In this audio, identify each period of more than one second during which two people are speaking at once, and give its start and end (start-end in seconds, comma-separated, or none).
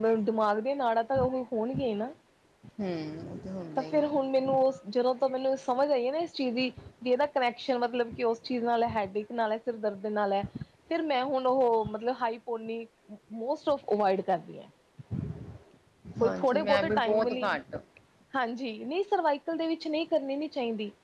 16.2-17.5